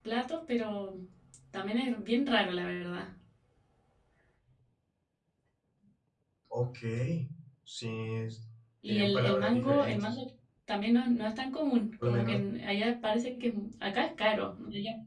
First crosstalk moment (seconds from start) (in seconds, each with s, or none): 8.9 s